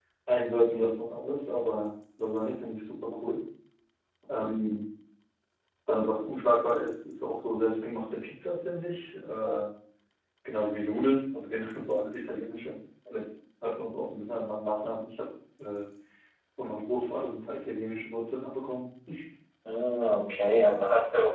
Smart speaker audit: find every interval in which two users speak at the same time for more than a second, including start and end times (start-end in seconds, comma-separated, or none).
none